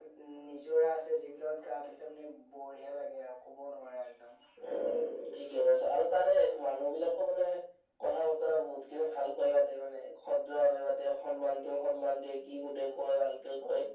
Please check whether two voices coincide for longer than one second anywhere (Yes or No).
No